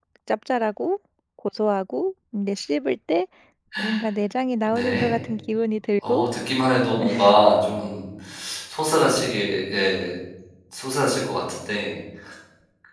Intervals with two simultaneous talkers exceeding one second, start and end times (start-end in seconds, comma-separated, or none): none